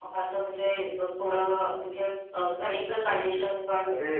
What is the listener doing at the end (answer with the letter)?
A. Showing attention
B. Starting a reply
B